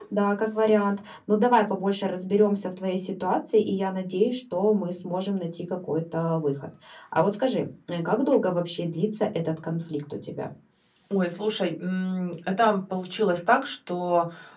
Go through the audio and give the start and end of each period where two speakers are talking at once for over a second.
none

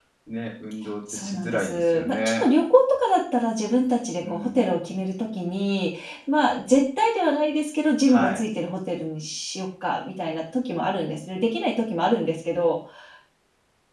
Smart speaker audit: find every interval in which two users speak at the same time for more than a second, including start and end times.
1.1-2.4

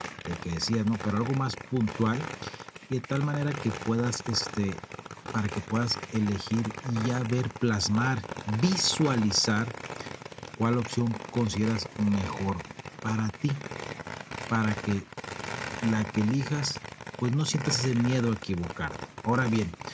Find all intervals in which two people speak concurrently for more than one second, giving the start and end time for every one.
none

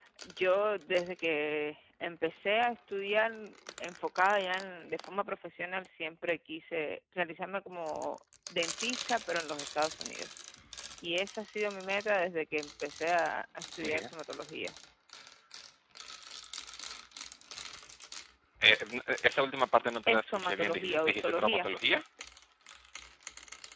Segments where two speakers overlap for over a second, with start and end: 20.1-21.7

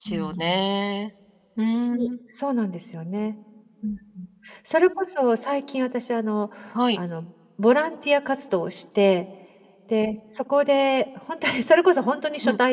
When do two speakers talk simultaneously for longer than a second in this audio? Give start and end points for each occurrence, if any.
none

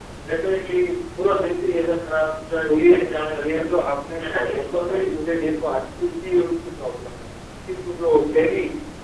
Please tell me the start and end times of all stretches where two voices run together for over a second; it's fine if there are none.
4.3-5.5

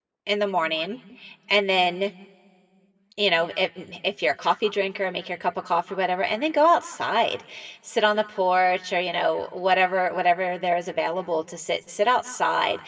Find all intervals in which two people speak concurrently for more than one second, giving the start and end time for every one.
none

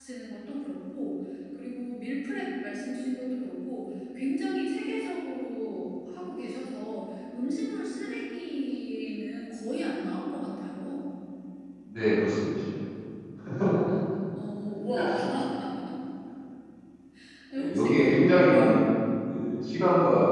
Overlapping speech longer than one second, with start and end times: 17.6-18.8

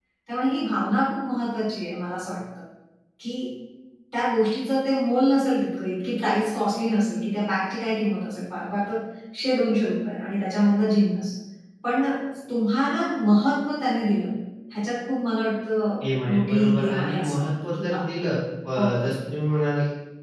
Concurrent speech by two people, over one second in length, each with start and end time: 16.0-18.0

